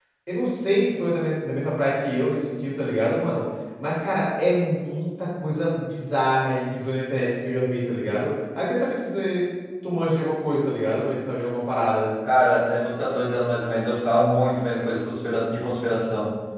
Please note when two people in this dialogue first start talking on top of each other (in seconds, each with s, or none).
none